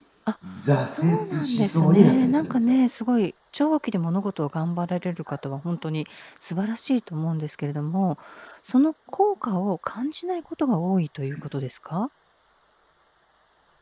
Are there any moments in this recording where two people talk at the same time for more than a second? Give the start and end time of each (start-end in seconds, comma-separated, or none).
0.9-2.7